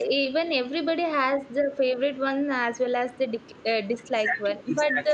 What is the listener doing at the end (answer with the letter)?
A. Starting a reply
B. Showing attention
B